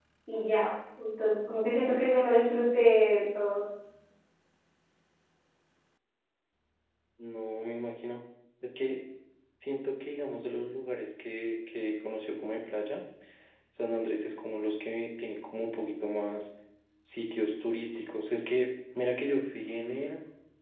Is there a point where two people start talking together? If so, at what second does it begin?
none

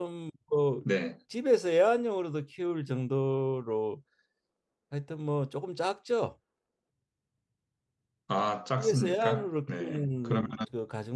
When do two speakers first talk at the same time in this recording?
9 s

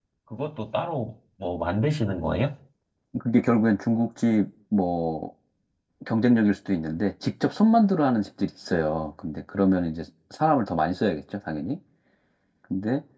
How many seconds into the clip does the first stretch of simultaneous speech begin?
none

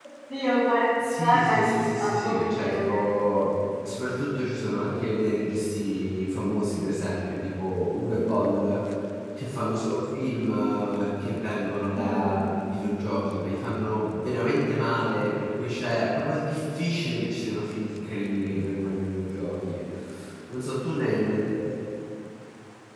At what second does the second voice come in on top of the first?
1 s

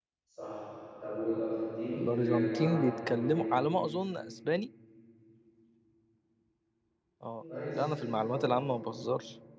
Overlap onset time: 2 s

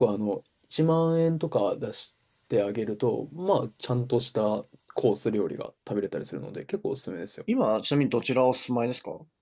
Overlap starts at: none

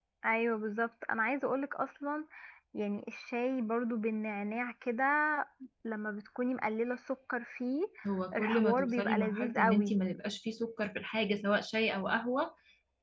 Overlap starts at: 8 s

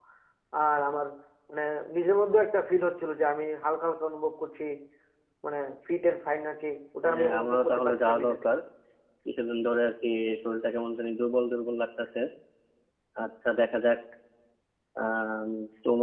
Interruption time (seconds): 7 s

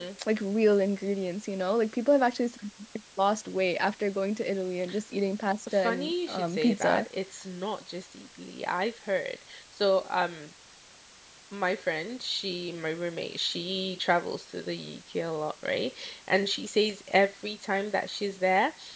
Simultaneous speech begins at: 6 s

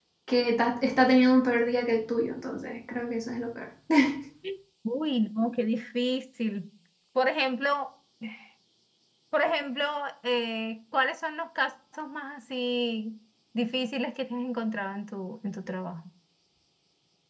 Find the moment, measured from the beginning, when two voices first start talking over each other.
none

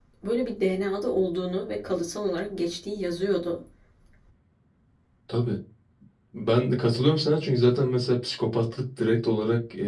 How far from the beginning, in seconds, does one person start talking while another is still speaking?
none

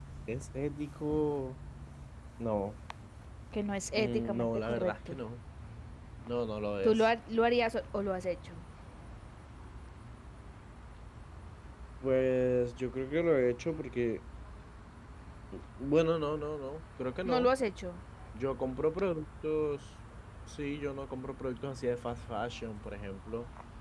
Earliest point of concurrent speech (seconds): 4 s

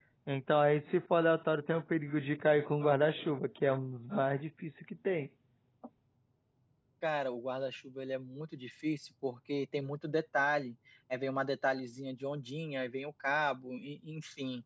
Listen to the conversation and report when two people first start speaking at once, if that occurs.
none

